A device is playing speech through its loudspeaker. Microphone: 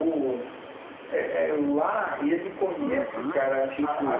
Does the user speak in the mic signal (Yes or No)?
Yes